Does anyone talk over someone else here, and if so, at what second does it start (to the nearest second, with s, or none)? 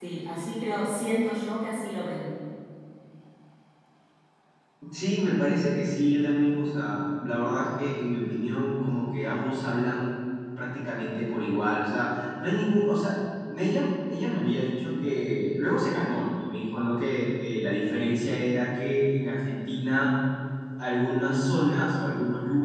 none